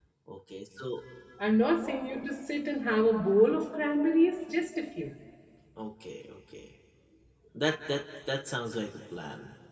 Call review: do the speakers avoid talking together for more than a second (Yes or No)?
Yes